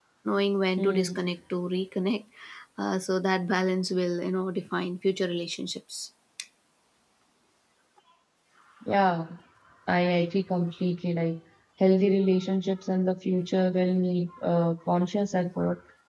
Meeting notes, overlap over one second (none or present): none